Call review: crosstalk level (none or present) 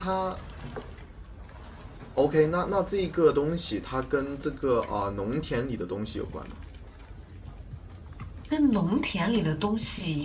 none